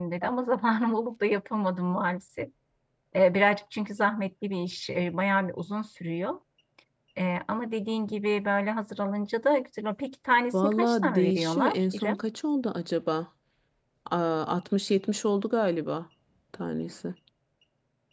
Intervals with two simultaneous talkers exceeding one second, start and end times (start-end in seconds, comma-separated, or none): 10.5-12.2